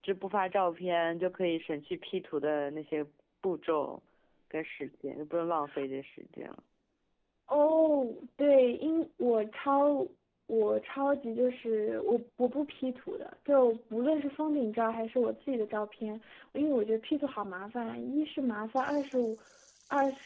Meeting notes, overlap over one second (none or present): none